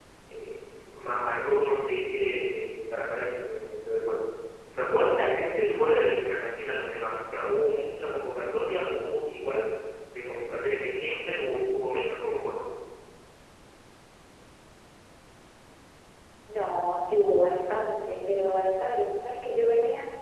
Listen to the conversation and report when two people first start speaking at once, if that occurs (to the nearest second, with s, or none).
none